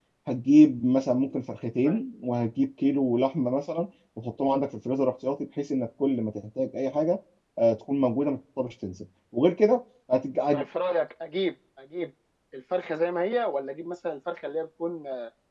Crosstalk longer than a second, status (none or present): none